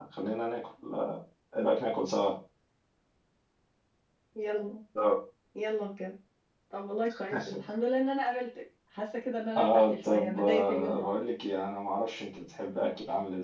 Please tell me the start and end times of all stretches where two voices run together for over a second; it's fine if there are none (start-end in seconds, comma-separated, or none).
9.6-11.2